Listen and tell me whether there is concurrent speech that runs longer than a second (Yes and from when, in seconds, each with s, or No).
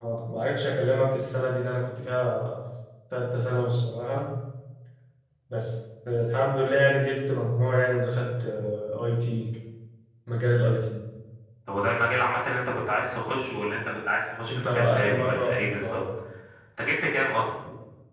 Yes, from 14.5 s